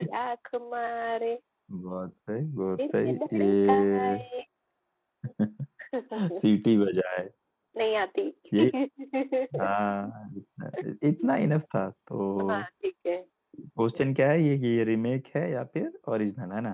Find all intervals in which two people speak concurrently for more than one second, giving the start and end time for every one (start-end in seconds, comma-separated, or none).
2.7-4.2